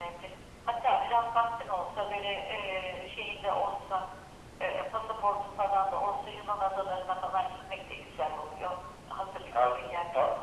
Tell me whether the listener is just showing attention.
No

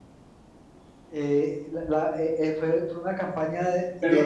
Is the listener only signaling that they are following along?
No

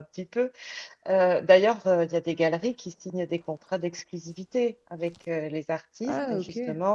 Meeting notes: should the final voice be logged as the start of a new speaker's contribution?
No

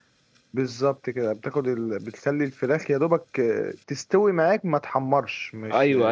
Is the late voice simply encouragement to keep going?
No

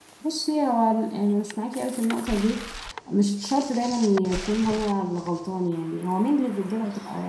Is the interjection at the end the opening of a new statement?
No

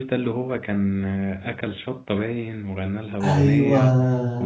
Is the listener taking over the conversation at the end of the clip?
No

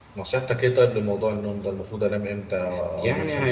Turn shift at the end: Yes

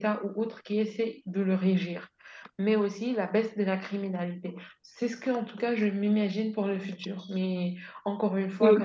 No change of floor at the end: Yes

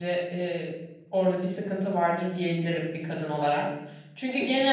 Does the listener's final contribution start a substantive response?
No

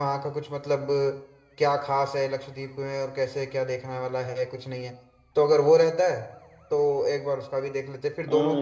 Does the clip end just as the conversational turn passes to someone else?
Yes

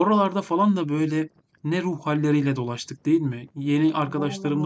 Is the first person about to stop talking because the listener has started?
No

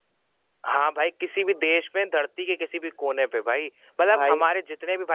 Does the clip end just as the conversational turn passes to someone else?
No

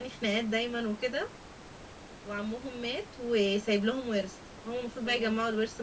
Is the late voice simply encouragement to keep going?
Yes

